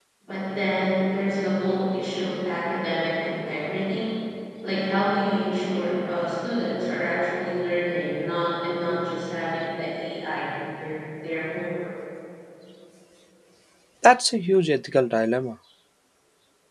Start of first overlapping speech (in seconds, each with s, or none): none